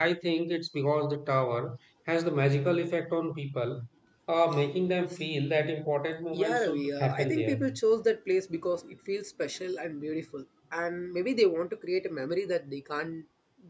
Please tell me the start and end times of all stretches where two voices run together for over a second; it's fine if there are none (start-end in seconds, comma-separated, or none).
6.3-7.6